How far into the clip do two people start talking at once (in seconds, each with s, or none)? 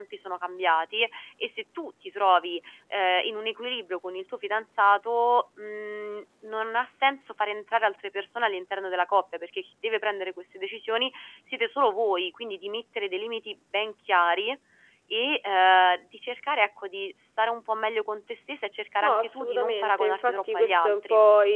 19.0 s